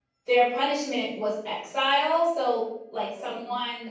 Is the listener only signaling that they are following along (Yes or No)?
Yes